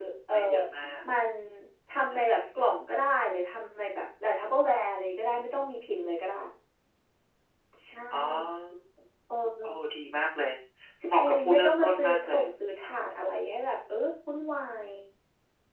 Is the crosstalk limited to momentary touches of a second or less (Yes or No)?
No